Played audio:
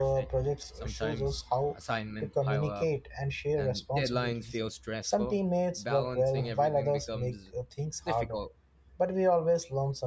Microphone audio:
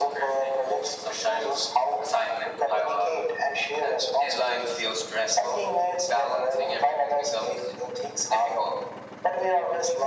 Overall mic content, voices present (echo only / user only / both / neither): echo only